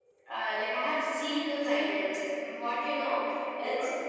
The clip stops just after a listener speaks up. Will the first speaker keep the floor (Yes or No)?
Yes